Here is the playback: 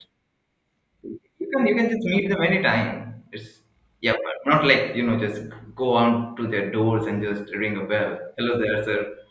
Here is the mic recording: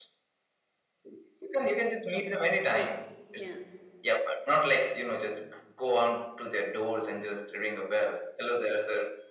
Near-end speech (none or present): present